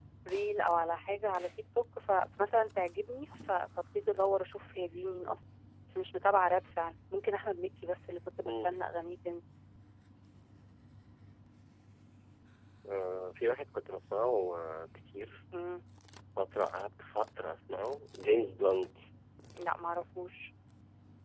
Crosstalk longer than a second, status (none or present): none